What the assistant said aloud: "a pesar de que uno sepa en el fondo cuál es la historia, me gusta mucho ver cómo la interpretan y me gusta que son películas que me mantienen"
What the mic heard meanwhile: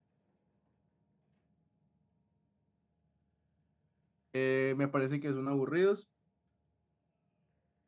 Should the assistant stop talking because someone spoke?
Yes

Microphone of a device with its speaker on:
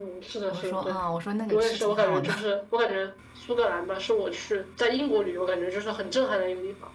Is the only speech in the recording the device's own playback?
No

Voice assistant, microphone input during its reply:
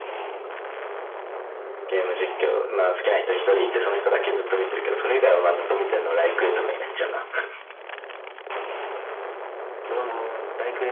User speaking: No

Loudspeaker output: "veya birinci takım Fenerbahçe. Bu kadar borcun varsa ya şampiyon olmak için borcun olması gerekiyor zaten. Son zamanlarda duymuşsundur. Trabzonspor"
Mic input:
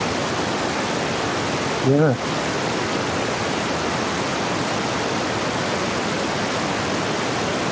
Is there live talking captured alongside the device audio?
Yes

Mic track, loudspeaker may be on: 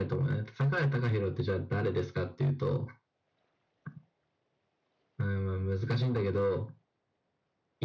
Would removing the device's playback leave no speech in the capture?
Yes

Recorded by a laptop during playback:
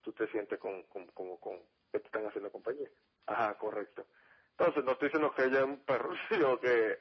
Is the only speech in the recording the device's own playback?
Yes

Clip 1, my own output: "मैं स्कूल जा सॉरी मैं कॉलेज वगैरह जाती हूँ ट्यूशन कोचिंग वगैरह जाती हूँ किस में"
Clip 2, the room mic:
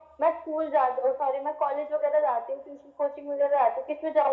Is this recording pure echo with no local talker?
Yes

